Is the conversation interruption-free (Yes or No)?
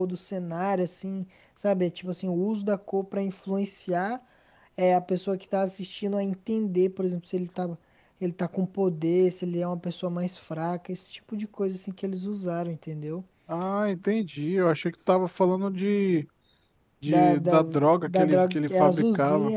No